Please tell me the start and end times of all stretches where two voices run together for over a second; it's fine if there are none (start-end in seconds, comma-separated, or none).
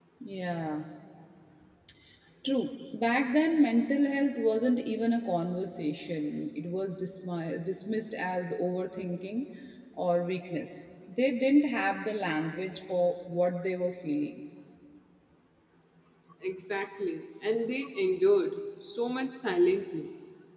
none